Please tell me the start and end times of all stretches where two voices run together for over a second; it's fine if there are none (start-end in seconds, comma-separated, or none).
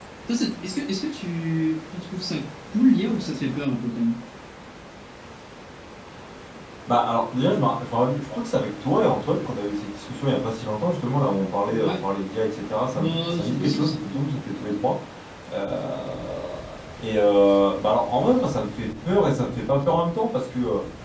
12.9-14.3